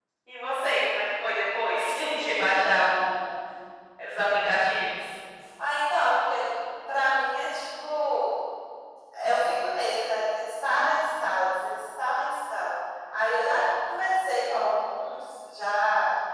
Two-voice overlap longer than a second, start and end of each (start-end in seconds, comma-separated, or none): none